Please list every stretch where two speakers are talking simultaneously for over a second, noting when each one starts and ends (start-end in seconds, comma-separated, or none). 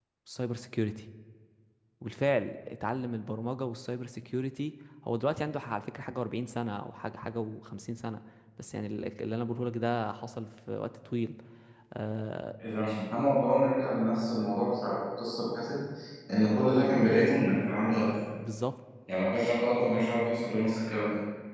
none